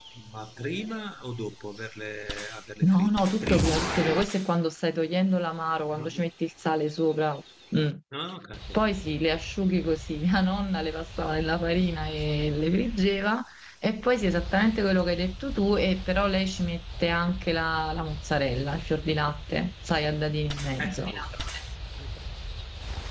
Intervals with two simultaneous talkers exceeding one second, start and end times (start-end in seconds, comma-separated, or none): 2.8-4.1